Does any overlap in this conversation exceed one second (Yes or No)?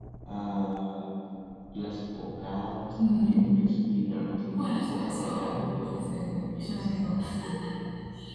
Yes